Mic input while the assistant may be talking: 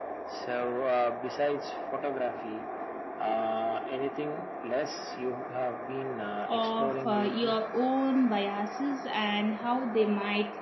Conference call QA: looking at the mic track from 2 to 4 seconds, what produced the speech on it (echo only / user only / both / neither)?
echo only